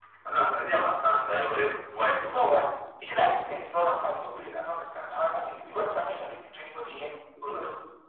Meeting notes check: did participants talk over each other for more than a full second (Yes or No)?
No